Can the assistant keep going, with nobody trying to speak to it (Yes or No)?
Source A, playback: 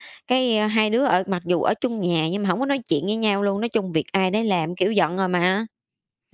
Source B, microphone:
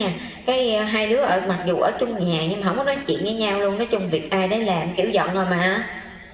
Yes